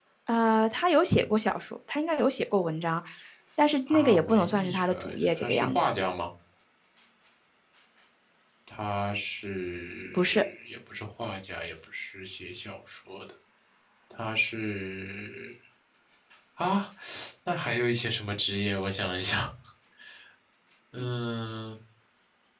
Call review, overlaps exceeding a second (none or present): present